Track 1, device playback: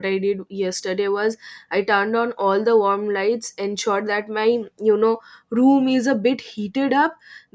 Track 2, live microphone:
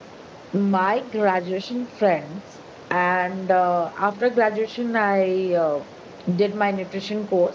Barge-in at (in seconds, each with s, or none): 0.5 s